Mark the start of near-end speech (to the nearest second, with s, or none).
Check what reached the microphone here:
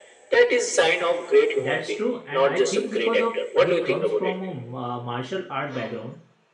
2 s